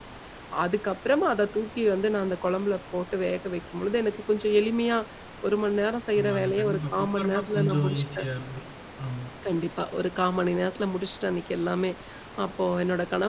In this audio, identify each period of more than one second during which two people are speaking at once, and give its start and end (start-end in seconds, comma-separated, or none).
6.2-8.2